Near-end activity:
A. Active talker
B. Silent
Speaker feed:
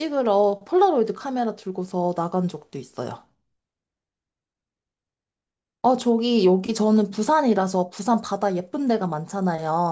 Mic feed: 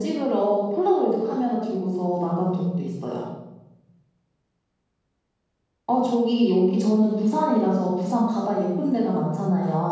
B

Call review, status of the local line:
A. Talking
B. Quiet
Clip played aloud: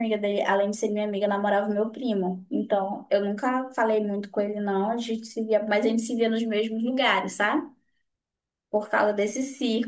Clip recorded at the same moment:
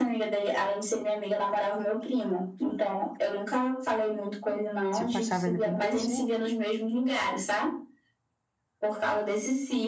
A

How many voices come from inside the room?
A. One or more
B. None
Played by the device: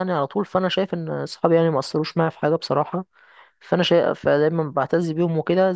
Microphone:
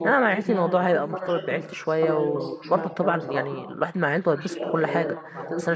A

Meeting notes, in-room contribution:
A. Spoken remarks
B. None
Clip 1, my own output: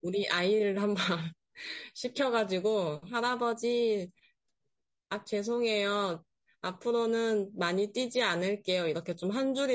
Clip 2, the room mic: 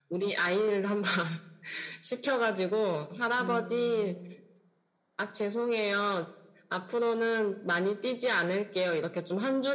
A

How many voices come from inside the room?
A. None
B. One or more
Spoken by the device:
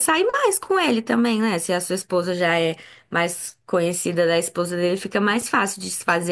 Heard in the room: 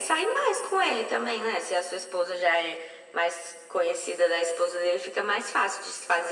A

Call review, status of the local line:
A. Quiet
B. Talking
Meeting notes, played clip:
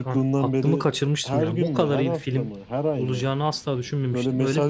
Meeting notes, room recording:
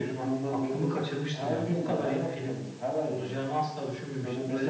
A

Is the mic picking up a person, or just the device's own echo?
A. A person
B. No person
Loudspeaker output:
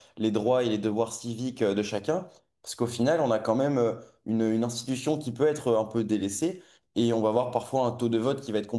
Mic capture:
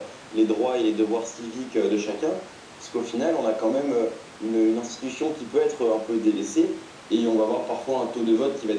B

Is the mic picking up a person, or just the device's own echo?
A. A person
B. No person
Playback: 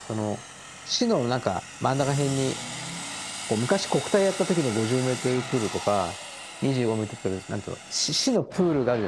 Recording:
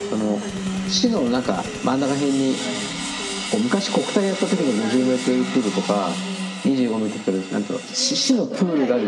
A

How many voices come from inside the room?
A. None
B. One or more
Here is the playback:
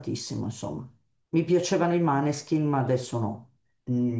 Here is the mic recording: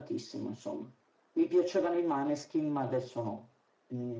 A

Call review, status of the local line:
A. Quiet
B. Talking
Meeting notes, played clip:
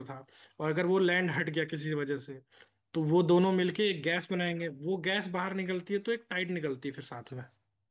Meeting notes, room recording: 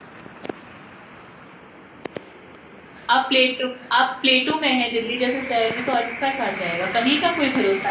B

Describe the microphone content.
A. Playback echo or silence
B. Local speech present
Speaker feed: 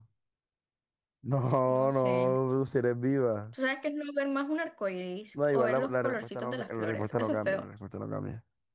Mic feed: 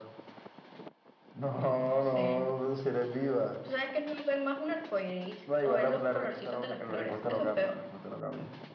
A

